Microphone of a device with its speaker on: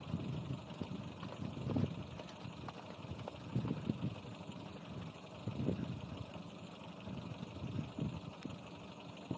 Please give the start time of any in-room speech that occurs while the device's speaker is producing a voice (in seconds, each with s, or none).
none